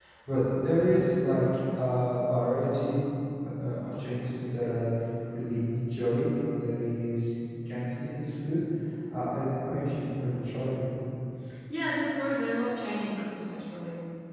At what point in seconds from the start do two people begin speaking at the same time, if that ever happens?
none

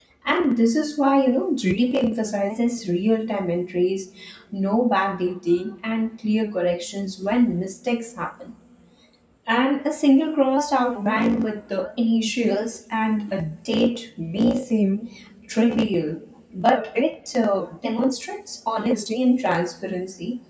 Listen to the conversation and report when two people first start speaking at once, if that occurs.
none

